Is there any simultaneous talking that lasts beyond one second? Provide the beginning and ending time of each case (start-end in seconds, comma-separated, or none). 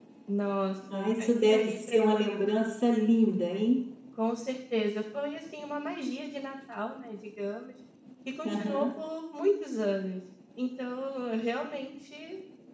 0.9-2.4